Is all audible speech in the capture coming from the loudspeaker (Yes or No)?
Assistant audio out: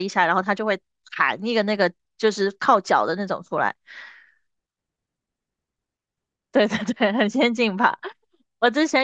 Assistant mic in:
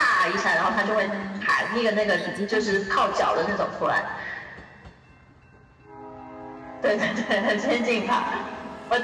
No